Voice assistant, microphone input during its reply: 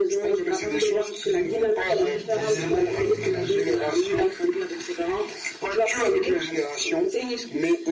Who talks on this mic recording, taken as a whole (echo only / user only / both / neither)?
both